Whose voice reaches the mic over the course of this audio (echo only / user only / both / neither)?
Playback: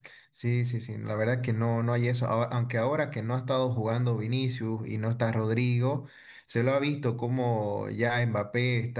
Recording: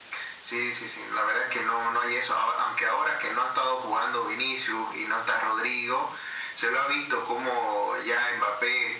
echo only